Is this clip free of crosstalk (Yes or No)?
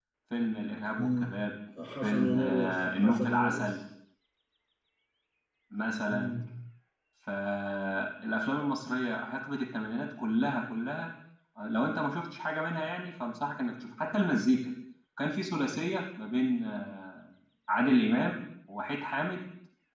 No